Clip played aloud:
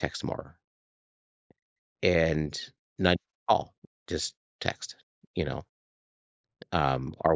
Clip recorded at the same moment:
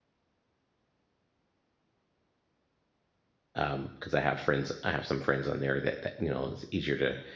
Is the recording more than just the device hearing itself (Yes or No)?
Yes